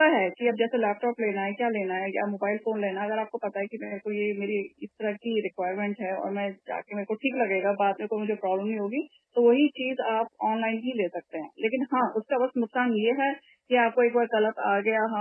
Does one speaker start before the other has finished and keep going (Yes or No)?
No